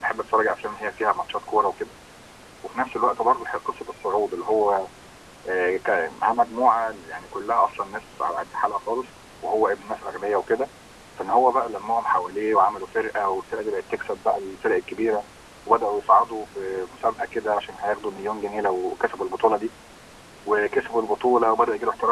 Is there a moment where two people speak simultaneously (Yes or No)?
No